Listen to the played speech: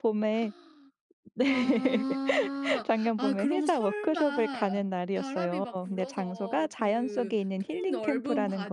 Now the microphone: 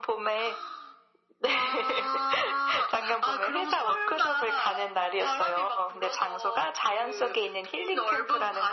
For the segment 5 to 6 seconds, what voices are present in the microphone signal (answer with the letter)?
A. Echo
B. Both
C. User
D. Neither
A